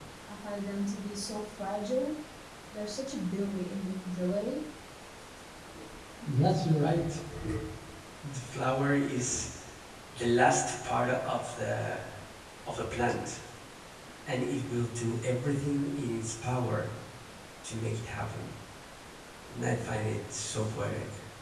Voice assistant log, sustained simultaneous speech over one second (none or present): none